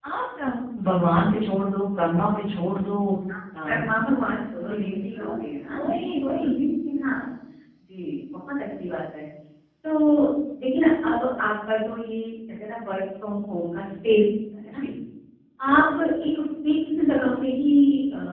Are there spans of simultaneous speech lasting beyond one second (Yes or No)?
No